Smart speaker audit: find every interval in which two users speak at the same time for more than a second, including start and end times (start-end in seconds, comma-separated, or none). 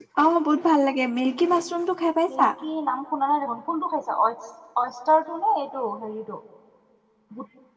none